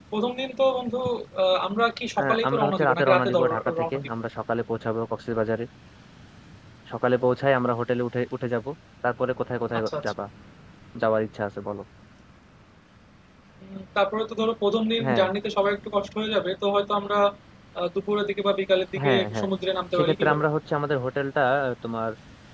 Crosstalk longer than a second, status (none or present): present